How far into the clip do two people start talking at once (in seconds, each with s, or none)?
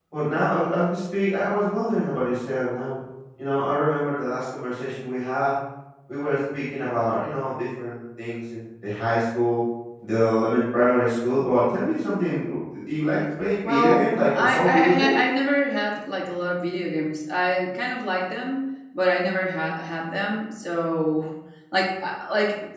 13.6 s